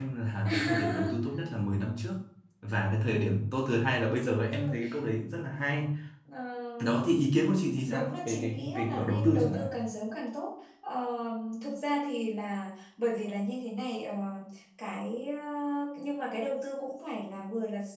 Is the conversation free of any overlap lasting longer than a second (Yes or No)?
No